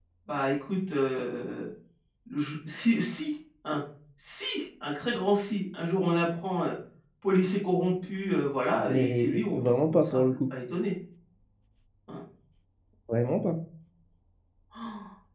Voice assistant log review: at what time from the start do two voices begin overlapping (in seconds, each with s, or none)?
8.8 s